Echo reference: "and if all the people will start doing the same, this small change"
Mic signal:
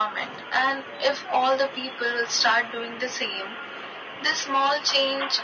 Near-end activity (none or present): none